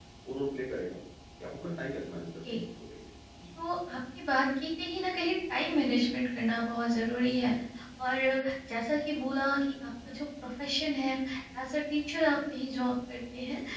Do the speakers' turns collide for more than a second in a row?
No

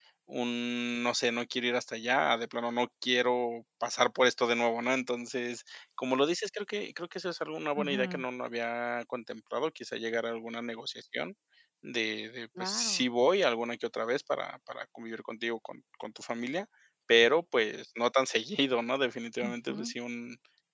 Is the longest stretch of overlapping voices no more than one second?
Yes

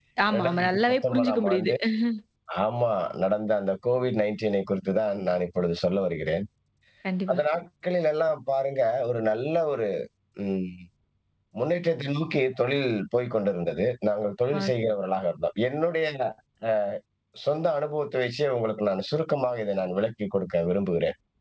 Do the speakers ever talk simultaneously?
Yes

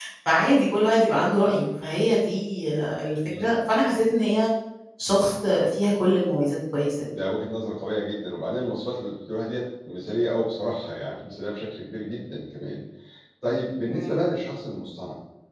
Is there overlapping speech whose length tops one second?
No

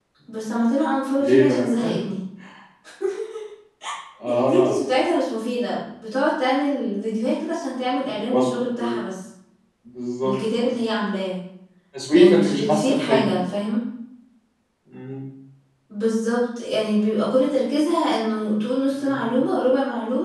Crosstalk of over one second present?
Yes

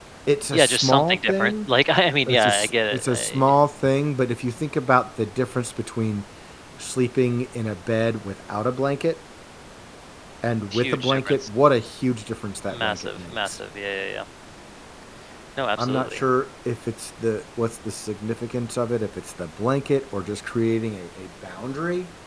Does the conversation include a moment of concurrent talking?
Yes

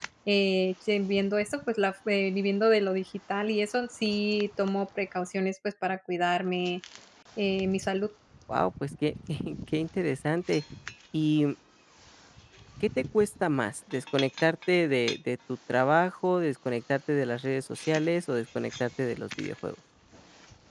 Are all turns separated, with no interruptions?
Yes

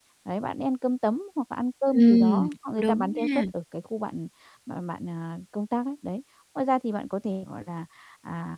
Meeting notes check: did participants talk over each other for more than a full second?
Yes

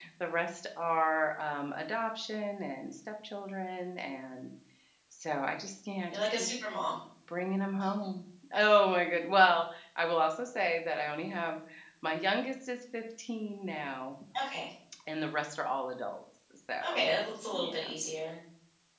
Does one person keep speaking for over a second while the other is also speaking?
No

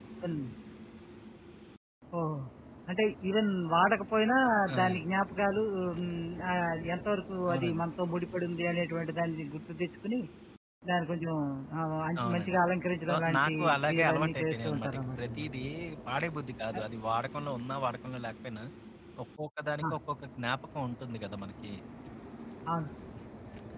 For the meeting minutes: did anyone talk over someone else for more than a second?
Yes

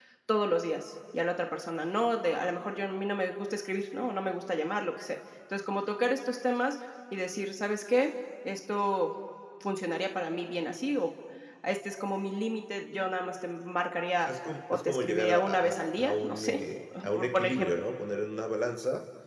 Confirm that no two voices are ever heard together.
No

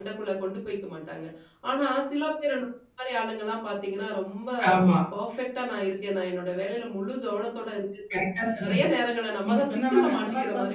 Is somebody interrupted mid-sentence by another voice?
Yes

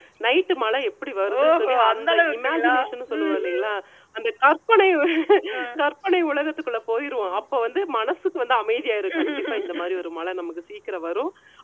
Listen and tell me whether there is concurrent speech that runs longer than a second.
Yes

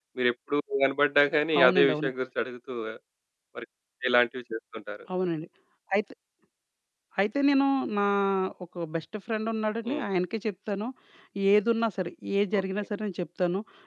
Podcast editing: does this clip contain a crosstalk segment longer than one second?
No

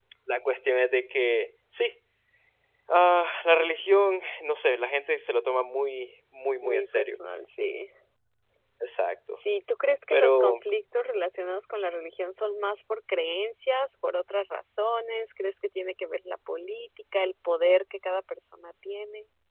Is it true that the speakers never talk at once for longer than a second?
Yes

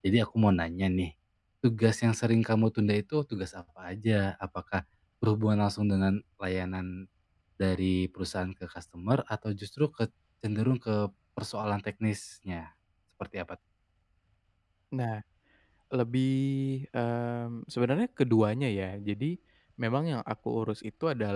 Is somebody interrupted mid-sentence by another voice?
No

